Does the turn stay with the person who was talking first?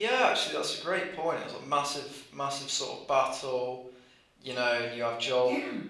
Yes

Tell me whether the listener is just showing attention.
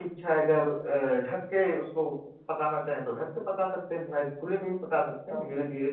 Yes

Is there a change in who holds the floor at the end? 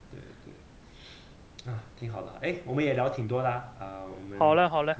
Yes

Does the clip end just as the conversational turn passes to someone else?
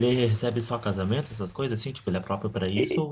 Yes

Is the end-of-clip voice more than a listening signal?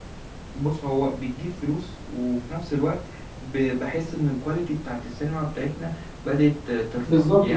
Yes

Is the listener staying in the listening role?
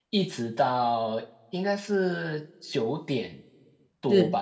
Yes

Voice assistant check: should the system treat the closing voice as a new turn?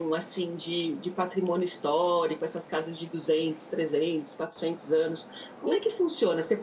No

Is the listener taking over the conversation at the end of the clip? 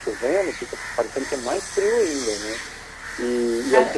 Yes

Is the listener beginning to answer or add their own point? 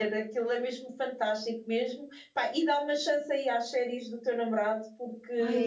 Yes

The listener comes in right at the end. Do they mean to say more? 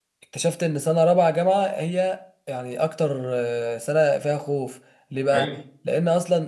No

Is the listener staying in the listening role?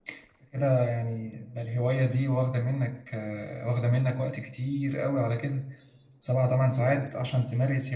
Yes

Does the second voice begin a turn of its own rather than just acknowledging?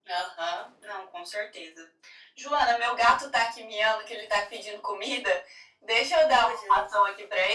No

